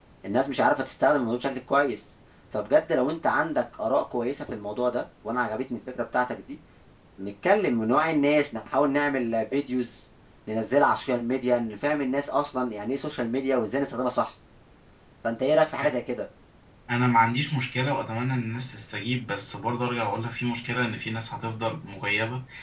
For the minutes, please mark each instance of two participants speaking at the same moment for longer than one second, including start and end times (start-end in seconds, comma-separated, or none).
none